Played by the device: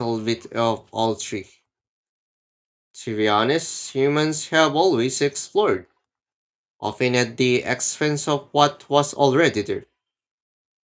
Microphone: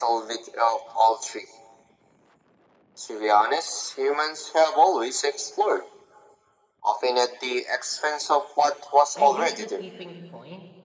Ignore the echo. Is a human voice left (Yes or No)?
Yes